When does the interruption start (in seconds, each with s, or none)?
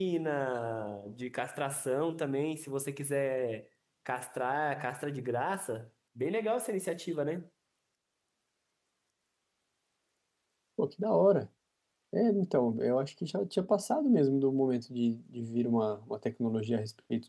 none